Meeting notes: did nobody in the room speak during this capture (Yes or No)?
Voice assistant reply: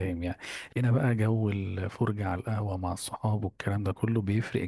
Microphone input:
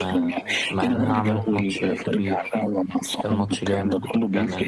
No